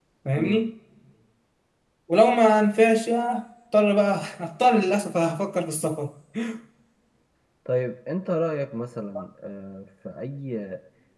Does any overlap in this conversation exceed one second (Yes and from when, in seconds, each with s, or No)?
No